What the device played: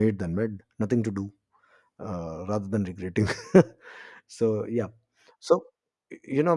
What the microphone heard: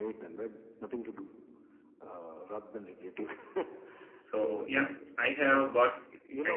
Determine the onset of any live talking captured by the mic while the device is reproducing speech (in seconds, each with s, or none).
4.2 s